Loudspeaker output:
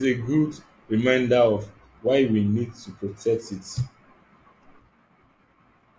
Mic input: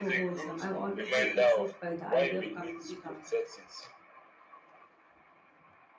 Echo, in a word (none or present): present